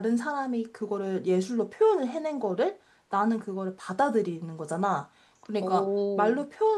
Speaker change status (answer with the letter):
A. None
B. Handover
A